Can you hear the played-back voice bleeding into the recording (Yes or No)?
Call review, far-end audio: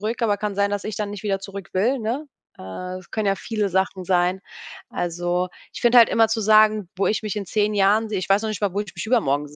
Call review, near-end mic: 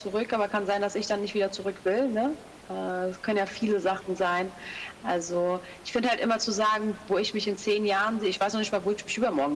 Yes